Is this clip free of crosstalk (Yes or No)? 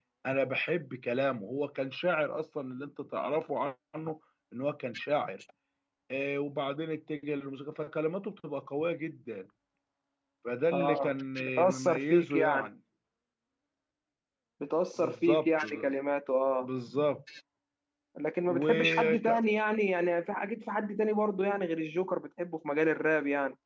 No